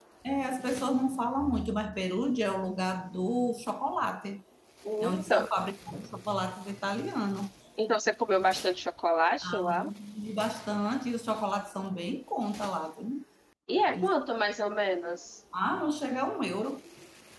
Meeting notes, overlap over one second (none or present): none